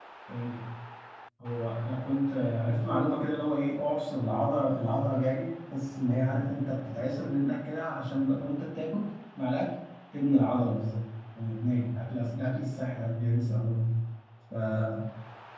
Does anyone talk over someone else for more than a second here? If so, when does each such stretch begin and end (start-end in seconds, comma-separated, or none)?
none